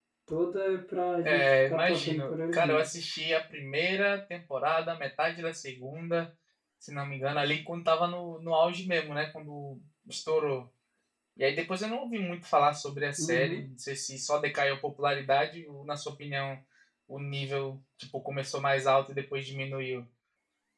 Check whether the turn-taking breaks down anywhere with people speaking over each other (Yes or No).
Yes